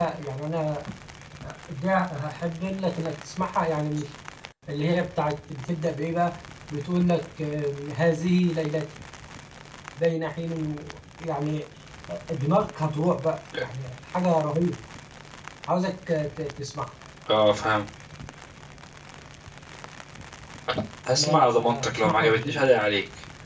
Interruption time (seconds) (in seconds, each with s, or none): 21.1 s